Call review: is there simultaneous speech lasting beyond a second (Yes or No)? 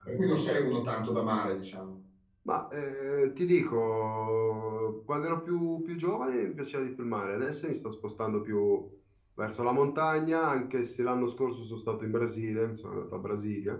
No